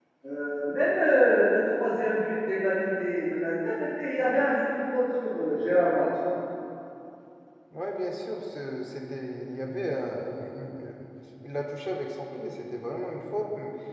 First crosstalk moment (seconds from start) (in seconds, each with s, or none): none